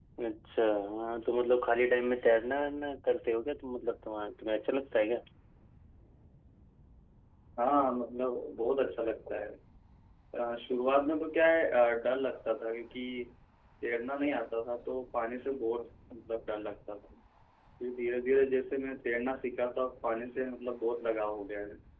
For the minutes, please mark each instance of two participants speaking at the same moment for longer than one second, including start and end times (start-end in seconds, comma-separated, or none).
none